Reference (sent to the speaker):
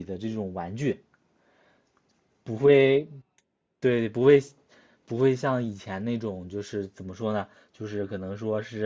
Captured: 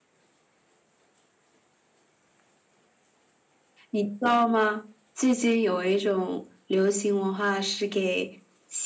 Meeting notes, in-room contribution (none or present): present